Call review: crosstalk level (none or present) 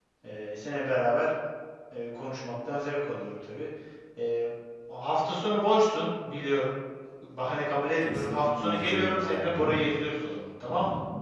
present